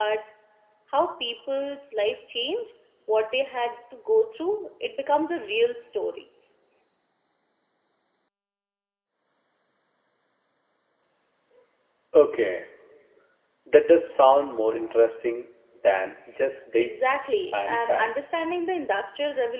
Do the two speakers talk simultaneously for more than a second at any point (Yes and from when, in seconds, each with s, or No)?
Yes, from 16.8 s